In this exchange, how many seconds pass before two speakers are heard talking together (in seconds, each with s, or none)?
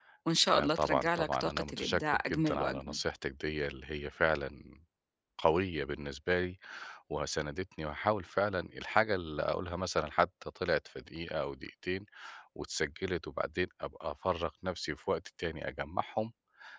0.5 s